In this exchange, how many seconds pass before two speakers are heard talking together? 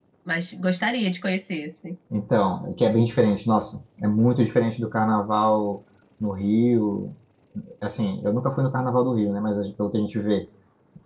none

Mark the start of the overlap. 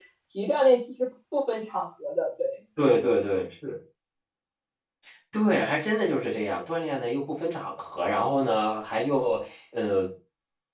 none

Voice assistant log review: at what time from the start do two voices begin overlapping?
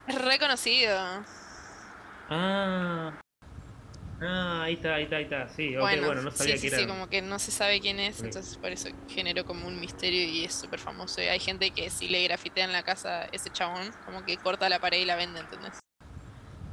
5.8 s

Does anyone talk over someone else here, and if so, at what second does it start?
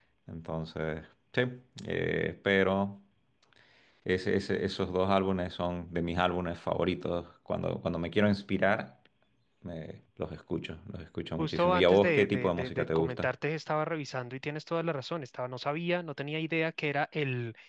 11.4 s

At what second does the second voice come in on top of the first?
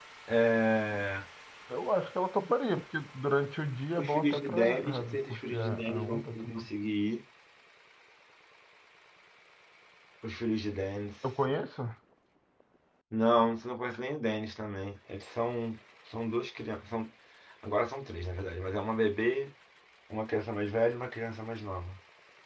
4.0 s

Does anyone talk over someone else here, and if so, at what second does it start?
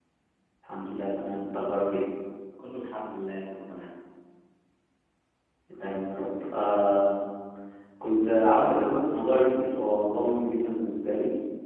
none

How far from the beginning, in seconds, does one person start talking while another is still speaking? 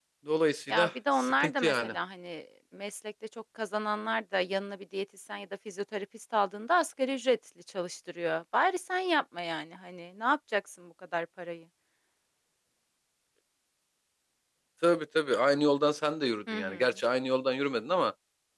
0.7 s

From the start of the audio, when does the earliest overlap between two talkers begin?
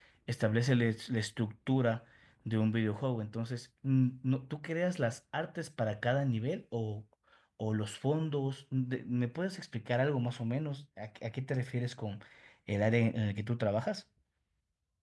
none

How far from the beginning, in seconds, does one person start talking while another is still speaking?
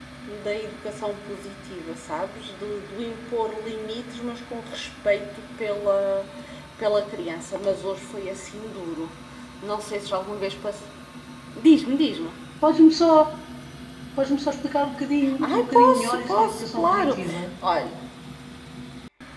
15.2 s

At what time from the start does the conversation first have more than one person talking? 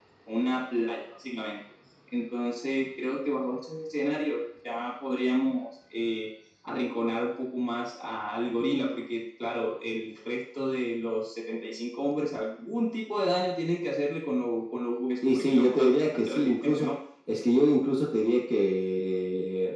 15.2 s

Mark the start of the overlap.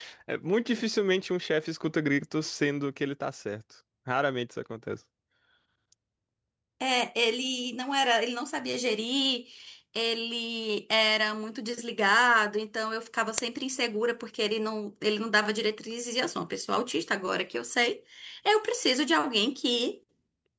none

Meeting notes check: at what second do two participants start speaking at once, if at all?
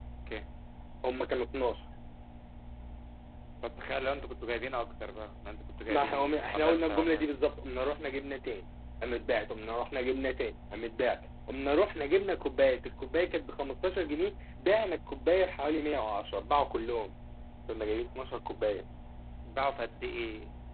5.9 s

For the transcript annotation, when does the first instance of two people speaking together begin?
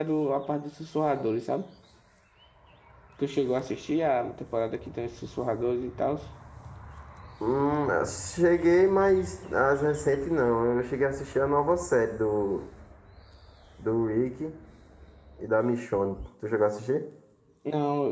none

